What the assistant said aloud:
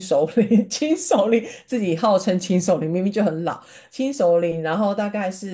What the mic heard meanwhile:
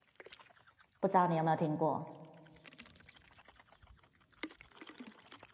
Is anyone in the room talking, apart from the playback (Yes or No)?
Yes